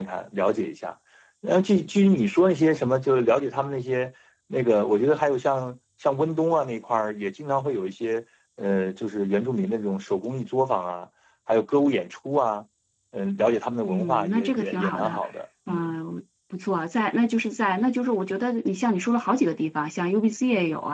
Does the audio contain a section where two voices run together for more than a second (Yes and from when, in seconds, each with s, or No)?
Yes, from 13.9 s